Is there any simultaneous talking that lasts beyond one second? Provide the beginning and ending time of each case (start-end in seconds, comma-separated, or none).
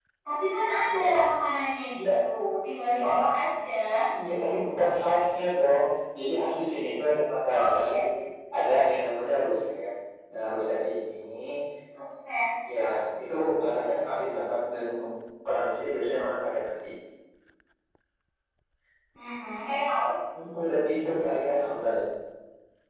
none